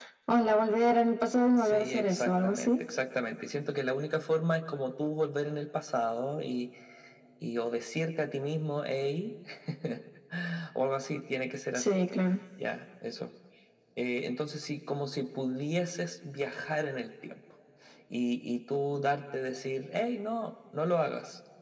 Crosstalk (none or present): present